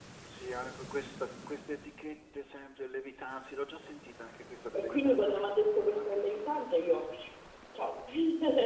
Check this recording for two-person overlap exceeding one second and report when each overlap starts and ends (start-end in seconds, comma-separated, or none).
4.7-7.0